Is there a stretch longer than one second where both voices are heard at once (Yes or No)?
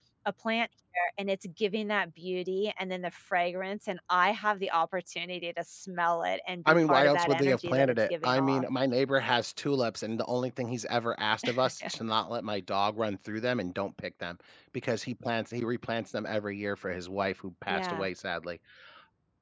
Yes